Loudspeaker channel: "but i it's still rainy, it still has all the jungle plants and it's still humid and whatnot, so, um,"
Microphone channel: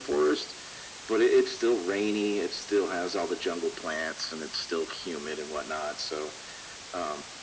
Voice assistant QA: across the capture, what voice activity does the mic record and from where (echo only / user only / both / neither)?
echo only